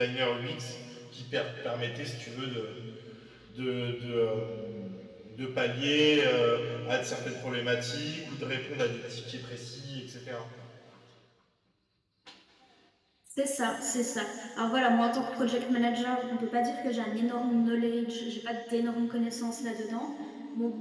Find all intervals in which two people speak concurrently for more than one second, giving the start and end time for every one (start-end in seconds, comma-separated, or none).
none